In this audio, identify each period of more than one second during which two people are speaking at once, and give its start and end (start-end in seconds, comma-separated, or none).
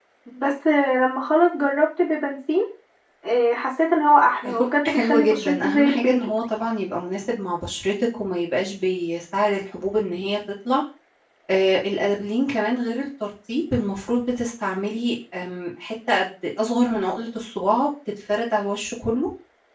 4.4-6.3